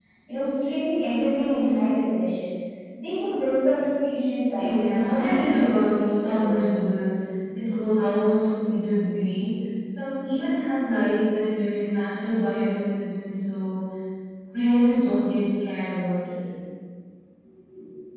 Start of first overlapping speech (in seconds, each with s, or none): 4.6 s